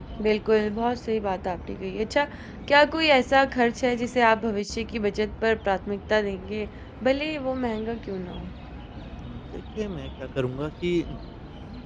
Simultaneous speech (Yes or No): No